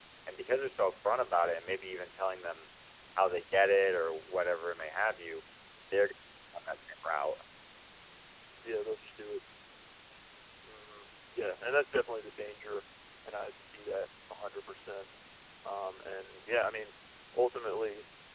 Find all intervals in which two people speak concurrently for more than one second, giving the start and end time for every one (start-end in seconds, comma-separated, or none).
none